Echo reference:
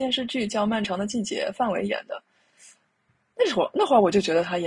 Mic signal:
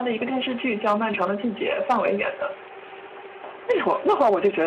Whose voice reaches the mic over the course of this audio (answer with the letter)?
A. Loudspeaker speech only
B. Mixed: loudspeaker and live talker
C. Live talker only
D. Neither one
A